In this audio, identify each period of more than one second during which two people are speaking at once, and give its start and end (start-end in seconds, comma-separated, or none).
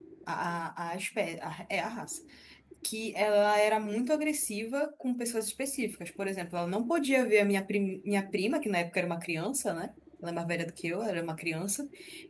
none